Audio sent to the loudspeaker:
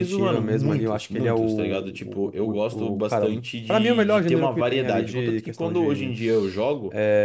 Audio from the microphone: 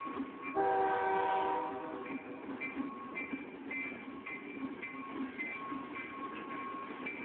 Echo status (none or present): none